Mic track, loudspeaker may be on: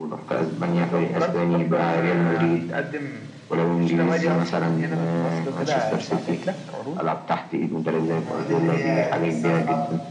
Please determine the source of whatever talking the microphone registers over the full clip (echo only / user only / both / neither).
both